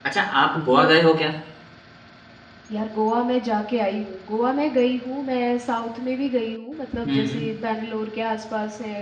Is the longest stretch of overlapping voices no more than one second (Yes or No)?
Yes